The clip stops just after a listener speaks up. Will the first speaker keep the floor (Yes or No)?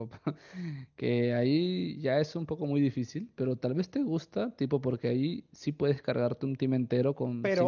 No